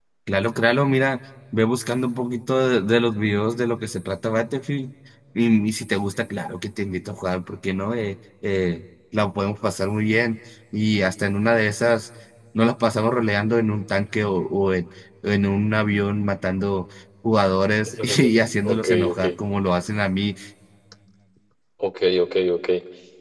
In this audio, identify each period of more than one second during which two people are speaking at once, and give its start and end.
18.0-19.2

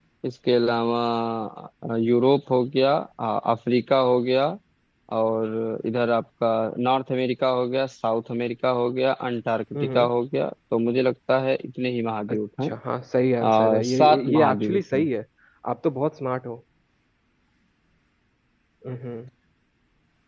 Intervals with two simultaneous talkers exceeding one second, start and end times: 13.4-15.1

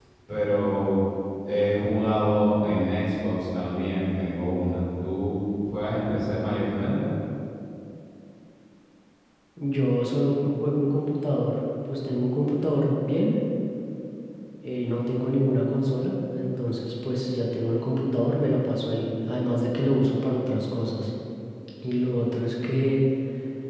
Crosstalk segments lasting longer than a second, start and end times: none

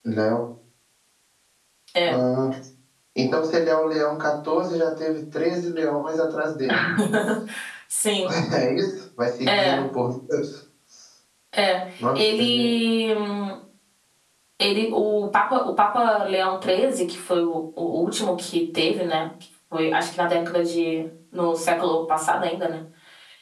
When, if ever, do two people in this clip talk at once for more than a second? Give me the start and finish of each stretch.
none

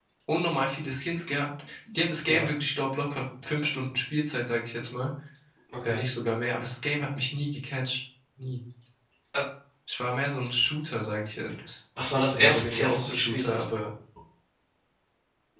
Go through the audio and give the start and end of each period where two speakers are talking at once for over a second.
12.3-13.7

